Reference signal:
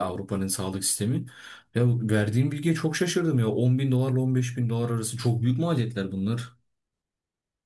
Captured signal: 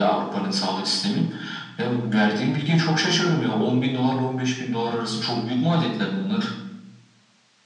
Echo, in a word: present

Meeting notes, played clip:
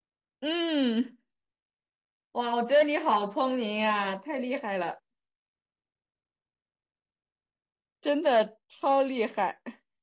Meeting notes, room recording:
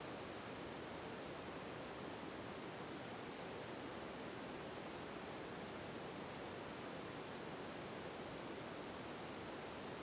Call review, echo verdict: none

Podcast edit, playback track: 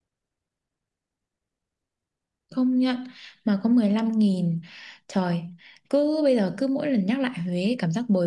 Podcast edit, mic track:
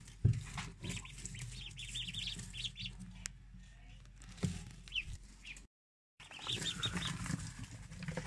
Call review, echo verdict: none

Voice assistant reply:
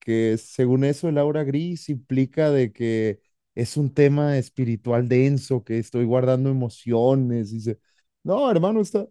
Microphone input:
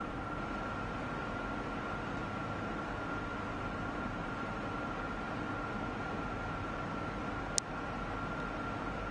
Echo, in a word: none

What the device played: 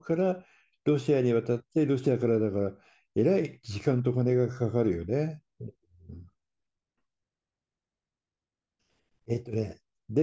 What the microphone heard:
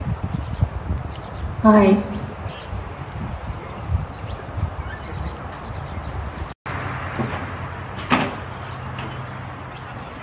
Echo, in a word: none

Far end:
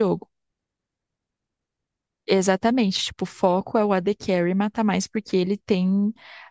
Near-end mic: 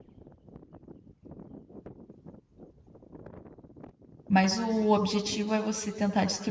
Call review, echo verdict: none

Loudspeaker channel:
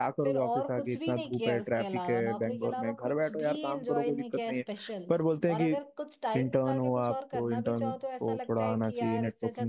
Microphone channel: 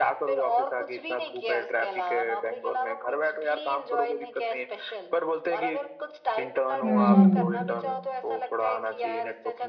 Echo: present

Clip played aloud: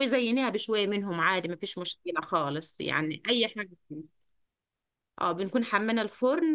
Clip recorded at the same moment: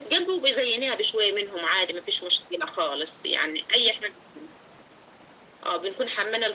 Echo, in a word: present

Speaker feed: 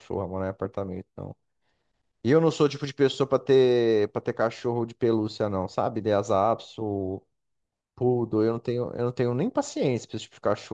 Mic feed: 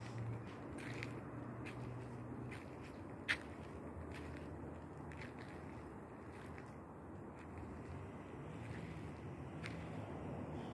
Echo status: none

